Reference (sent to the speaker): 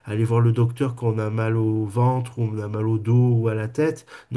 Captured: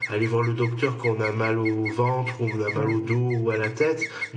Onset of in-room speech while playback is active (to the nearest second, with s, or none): 3 s